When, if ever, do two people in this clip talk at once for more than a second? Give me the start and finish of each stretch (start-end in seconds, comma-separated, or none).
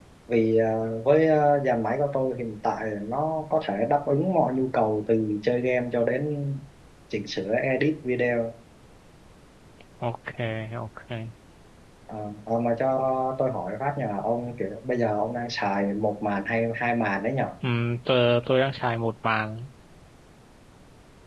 none